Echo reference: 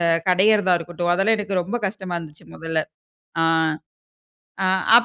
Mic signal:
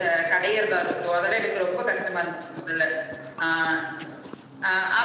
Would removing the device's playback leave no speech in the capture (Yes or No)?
Yes